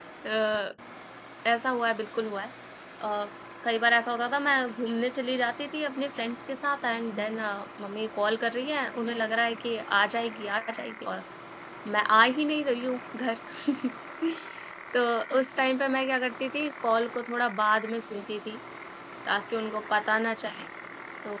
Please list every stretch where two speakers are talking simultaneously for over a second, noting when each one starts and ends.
none

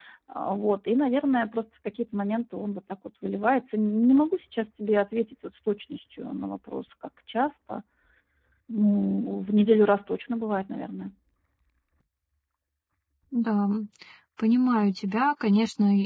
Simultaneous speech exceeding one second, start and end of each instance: none

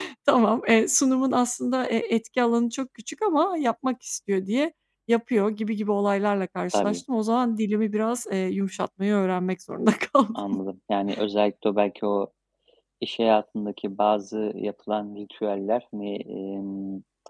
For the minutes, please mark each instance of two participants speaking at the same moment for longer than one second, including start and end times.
none

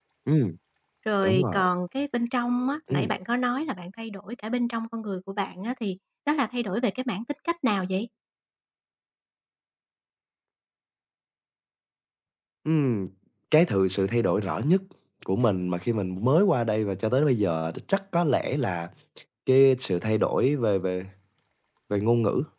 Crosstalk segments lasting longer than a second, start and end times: none

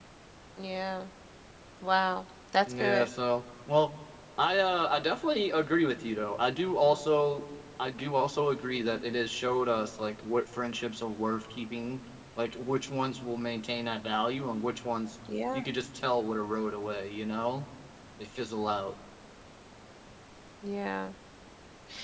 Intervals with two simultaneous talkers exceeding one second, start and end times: none

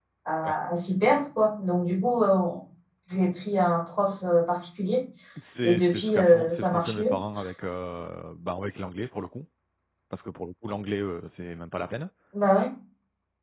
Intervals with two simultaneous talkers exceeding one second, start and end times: 5.6-7.1

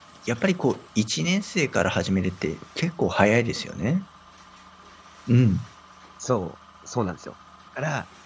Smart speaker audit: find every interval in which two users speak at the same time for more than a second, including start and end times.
none

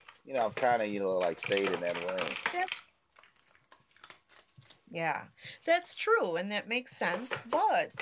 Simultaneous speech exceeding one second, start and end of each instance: none

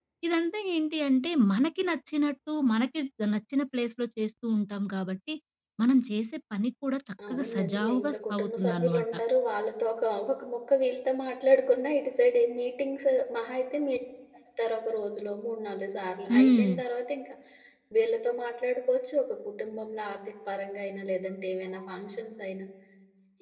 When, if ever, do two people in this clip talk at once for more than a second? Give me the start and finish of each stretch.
7.3-9.0

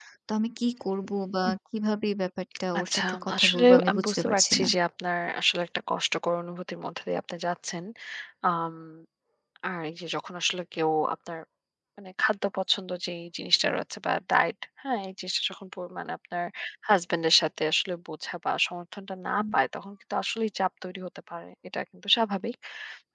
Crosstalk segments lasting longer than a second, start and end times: 2.8-4.7

